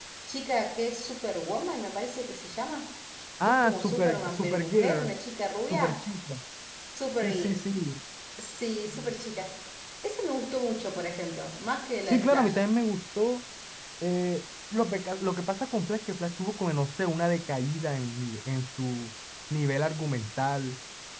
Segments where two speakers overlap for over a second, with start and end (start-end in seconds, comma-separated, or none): 3.4-5.2